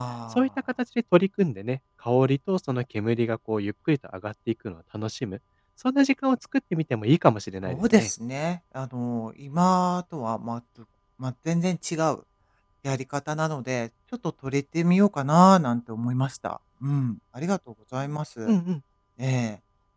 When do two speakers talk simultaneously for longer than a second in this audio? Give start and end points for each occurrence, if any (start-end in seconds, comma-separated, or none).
none